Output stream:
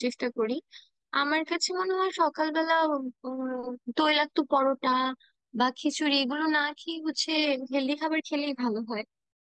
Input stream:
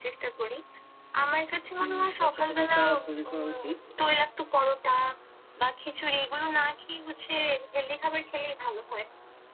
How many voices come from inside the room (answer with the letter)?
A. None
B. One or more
B